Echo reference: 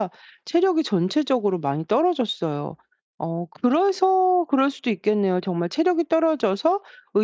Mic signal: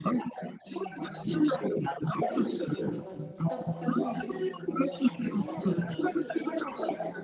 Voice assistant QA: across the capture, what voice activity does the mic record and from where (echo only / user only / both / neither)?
both